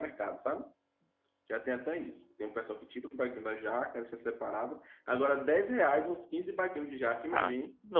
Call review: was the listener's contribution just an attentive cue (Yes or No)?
No